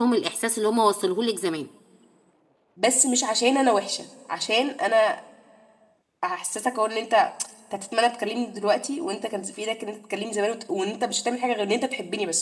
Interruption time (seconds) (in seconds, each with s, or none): none